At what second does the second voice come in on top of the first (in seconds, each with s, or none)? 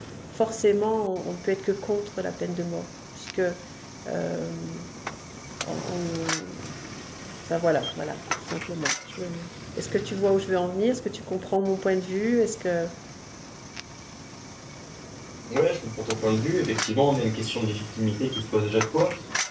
none